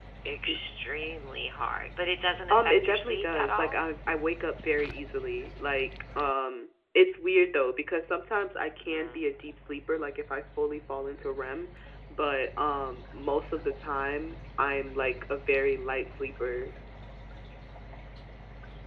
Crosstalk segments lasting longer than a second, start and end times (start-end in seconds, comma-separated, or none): 2.5-3.8